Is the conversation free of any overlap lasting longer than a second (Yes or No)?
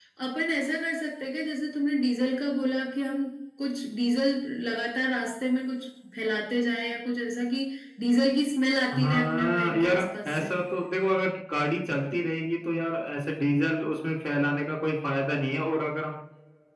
No